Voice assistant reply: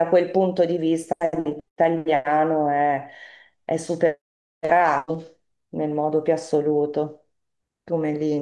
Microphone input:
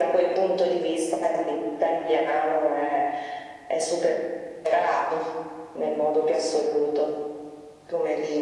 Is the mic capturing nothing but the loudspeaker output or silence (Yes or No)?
Yes